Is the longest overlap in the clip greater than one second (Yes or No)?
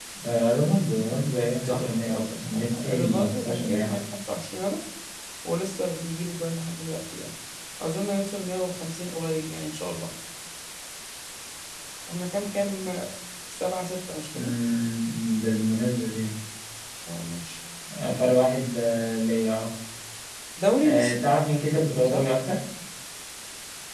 Yes